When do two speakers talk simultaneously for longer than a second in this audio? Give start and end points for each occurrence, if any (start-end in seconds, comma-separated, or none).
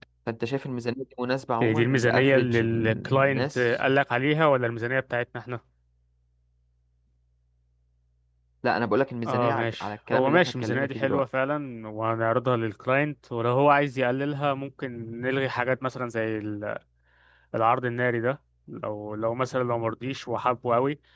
1.6-3.6, 9.2-11.2